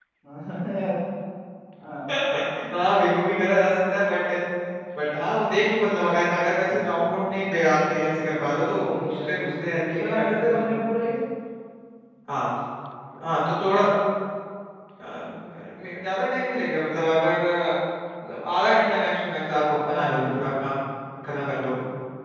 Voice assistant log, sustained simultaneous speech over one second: present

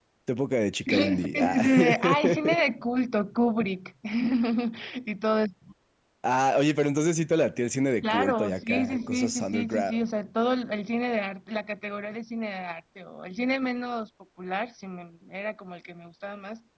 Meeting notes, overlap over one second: present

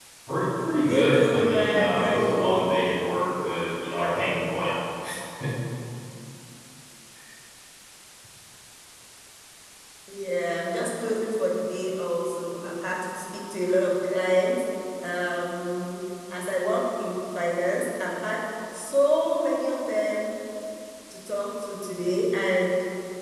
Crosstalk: present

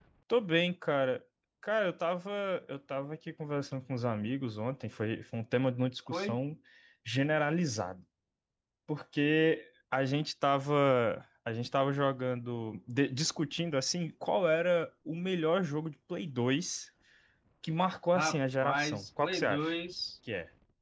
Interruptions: present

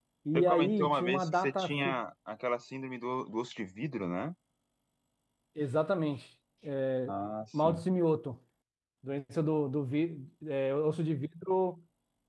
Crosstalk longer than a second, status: present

